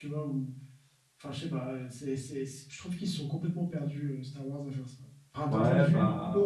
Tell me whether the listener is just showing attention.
No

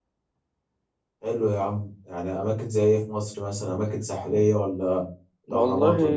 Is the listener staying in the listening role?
No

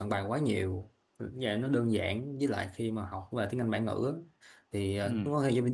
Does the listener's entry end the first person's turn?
No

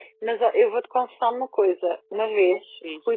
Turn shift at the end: No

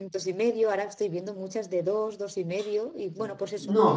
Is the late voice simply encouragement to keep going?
No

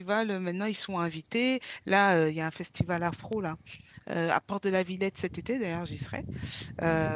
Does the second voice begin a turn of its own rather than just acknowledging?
No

